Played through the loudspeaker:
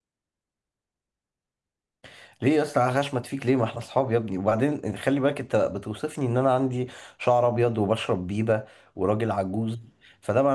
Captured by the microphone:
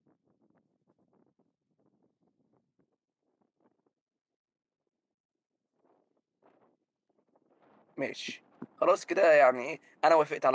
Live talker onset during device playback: 8.0 s

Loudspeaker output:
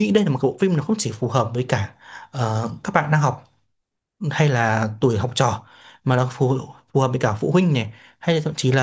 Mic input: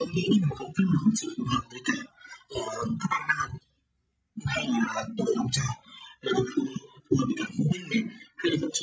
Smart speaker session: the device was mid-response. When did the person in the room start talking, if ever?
none

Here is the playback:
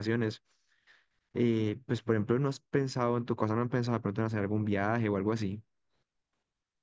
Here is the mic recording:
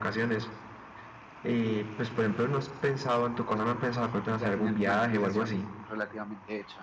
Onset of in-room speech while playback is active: 4.3 s

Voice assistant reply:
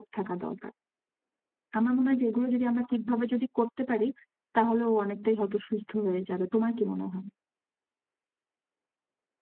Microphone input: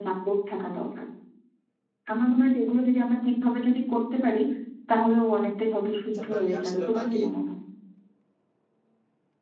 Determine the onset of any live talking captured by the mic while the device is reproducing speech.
6.1 s

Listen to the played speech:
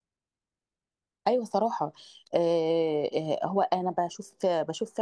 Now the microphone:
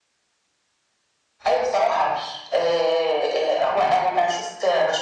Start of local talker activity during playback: none

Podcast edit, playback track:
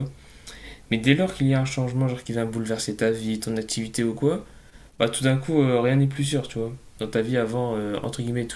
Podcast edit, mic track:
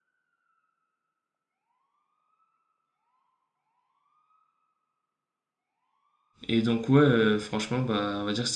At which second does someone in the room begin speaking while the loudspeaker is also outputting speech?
6.5 s

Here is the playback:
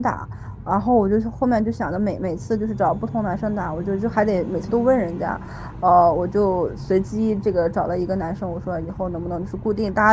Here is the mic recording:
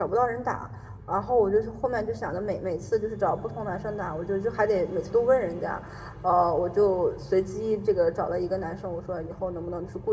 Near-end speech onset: none

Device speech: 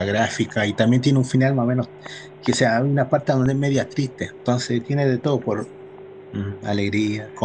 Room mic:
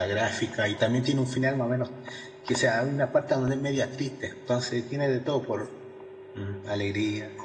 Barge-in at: none

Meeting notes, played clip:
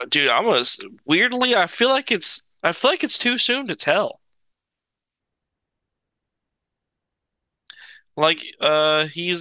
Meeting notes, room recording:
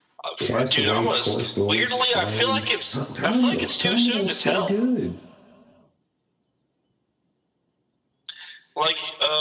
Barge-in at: 0.4 s

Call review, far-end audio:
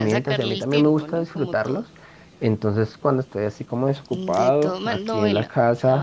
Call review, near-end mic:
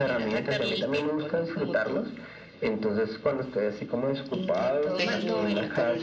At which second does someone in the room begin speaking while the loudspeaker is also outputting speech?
4.9 s

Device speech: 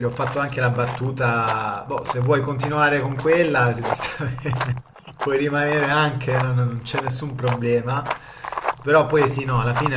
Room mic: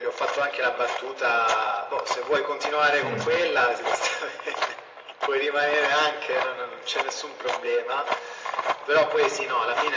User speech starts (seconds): 2.9 s

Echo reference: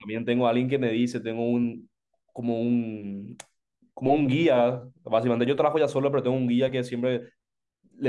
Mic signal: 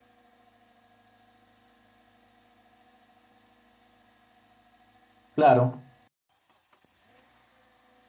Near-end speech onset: 5.3 s

